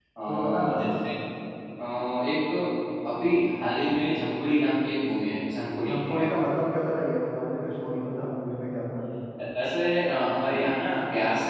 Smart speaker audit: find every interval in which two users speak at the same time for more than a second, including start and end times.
none

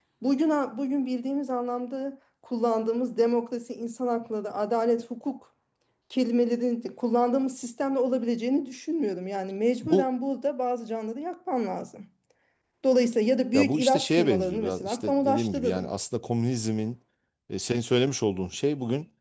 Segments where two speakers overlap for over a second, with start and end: 13.5-15.9

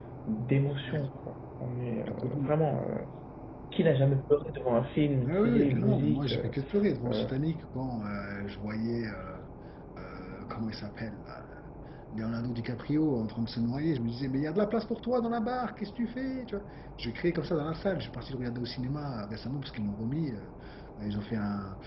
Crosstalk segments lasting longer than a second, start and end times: 5.2-6.5

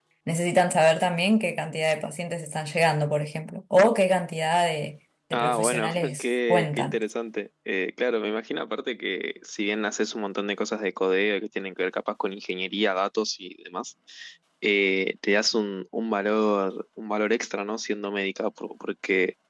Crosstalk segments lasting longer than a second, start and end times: 5.3-7.0

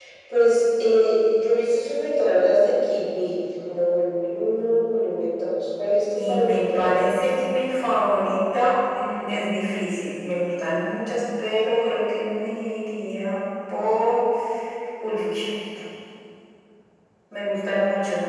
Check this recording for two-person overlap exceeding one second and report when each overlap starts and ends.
6.1-7.5

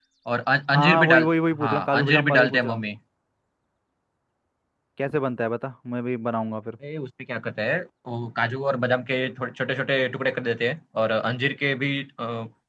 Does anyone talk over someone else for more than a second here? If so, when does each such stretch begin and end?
0.7-2.8

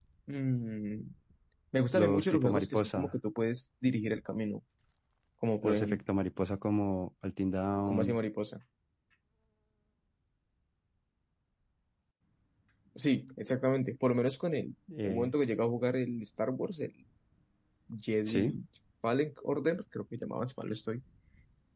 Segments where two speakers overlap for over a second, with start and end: 1.9-3.1

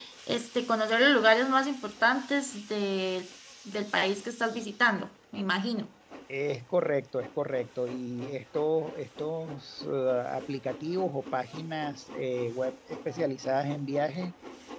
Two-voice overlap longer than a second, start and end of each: none

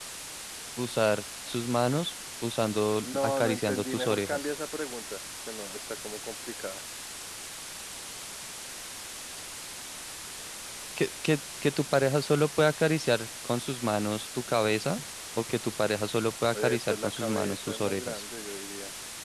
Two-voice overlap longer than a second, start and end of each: 3.0-4.5, 16.5-18.2

